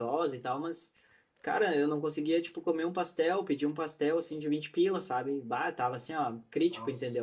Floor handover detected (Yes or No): No